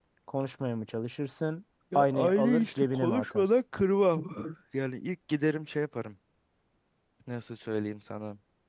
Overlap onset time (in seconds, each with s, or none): 1.9 s